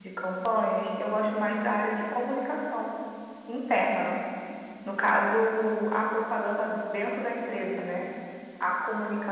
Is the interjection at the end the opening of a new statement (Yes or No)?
No